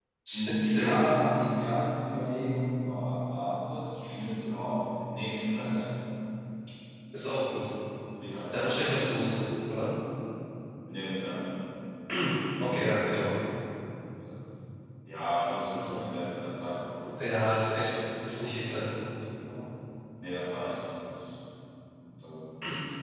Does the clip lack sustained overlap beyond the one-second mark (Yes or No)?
No